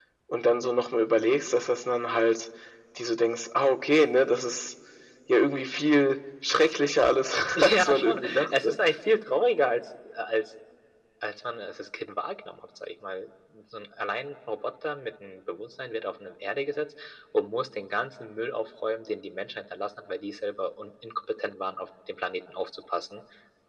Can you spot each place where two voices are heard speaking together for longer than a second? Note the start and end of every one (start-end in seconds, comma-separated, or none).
7.5-8.8